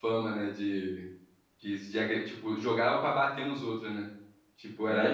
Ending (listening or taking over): taking over